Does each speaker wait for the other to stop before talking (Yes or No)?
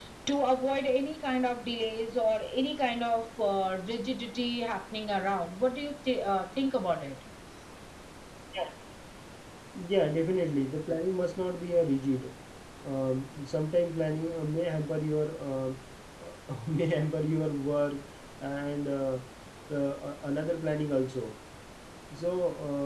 Yes